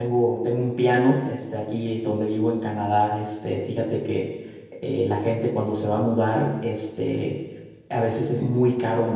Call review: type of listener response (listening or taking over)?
listening